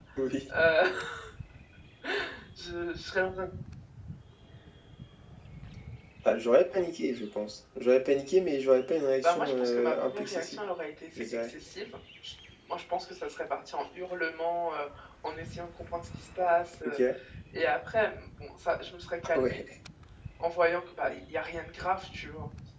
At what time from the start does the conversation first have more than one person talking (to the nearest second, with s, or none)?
9 s